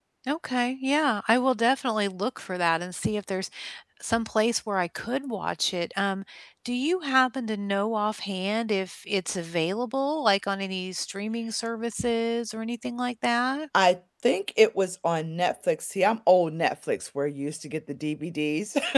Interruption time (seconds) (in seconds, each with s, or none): none